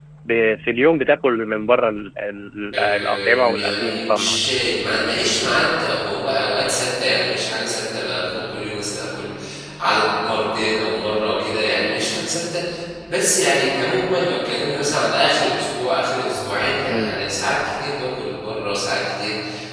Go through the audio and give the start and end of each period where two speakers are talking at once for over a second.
2.8-4.4

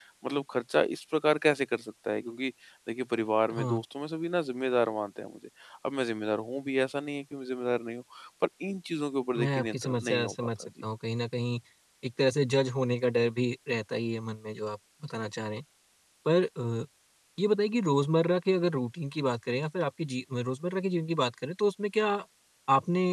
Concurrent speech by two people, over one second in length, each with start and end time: 9.4-10.7

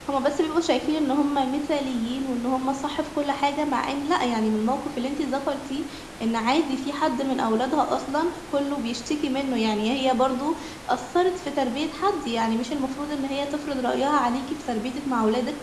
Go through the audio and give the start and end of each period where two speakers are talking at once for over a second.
none

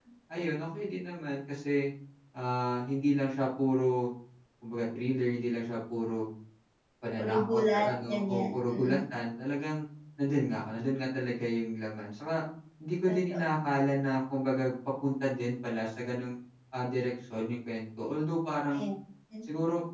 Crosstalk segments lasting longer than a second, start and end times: 7.2-9.0

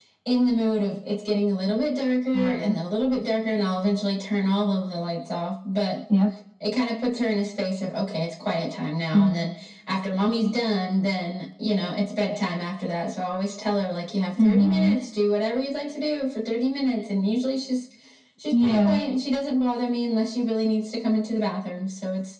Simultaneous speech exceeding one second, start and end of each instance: none

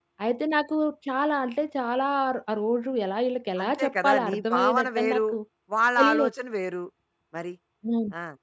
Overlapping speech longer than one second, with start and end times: 3.6-5.2

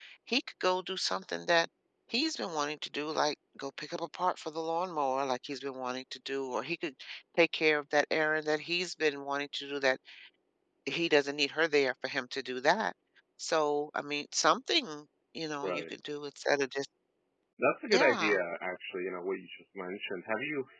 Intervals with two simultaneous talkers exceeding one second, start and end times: none

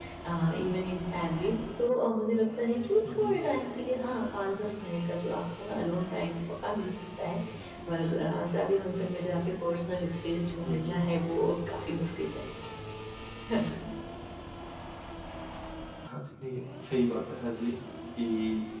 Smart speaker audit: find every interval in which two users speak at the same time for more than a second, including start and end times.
none

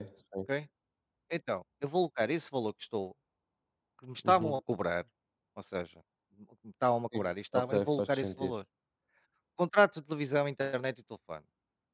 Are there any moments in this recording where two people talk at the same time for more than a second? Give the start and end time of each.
7.1-8.5

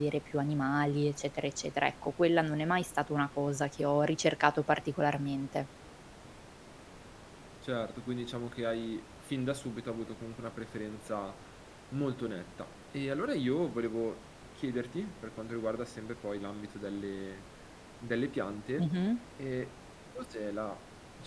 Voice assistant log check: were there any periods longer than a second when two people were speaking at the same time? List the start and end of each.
none

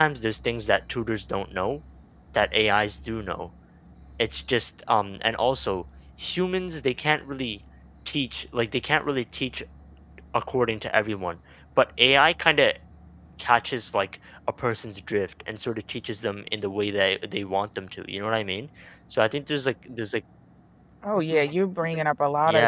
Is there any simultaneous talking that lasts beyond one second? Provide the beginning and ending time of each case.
none

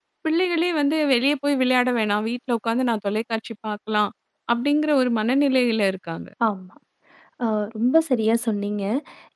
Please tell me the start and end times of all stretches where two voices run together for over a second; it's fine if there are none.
none

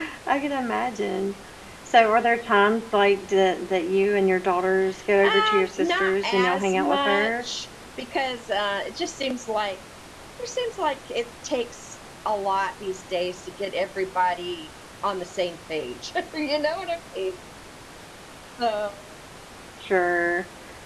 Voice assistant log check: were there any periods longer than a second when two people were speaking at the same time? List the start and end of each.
5.2-7.4

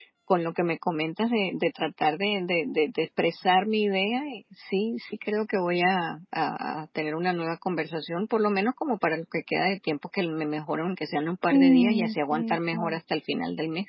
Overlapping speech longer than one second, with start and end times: 11.5-13.0

